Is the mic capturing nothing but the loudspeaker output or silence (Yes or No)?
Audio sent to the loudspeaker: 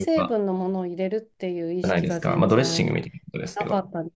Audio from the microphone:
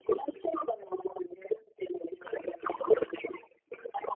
Yes